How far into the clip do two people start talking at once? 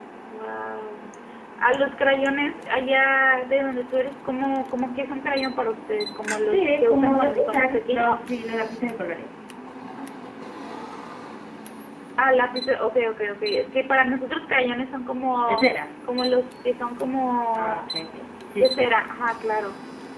6.4 s

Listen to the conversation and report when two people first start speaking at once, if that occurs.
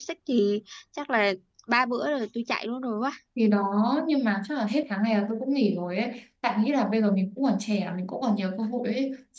none

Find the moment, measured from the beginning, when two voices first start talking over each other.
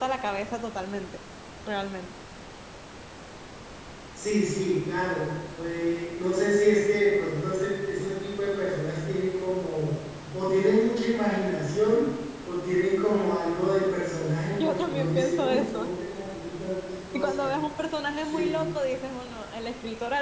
14.6 s

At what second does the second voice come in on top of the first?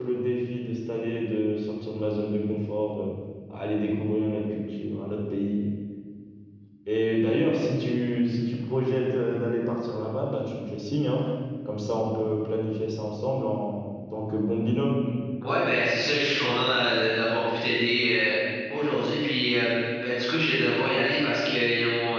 none

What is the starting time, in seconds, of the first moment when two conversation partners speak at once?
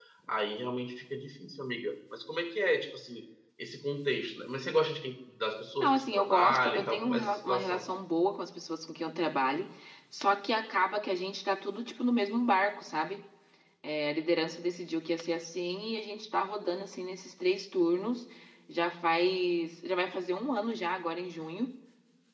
5.8 s

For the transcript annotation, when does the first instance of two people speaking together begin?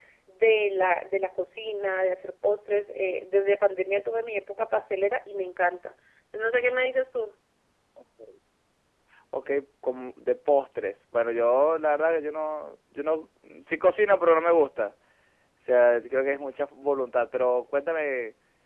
none

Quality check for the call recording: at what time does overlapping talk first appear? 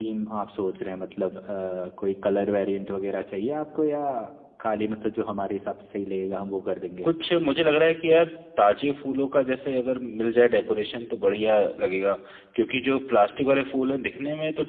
none

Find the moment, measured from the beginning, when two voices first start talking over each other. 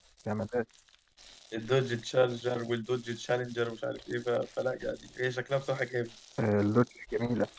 none

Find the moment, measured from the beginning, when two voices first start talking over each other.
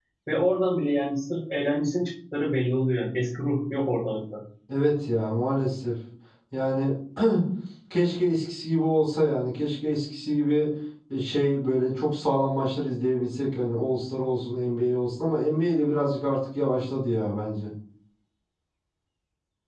none

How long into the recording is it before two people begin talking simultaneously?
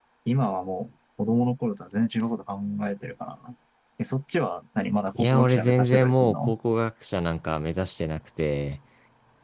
5.2 s

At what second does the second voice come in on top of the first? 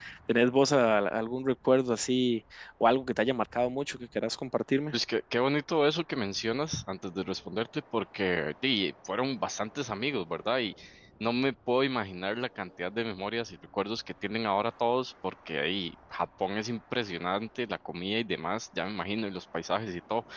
none

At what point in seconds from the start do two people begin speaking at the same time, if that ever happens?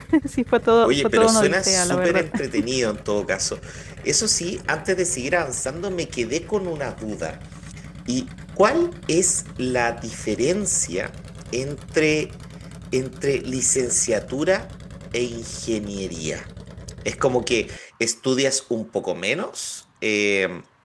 0.8 s

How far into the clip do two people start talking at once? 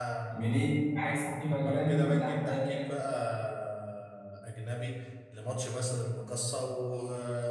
1.5 s

